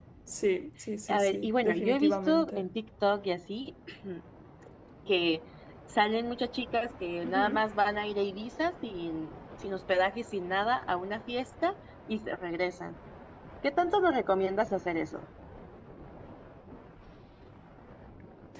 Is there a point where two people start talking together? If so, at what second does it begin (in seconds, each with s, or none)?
1.1 s